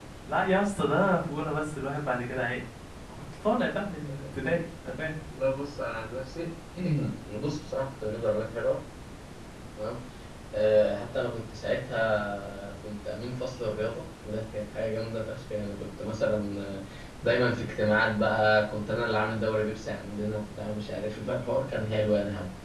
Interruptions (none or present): none